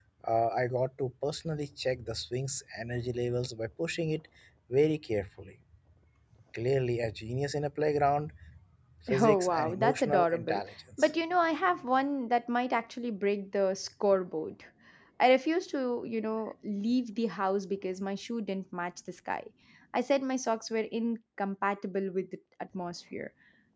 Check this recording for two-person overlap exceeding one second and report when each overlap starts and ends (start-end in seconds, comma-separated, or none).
9.2-10.6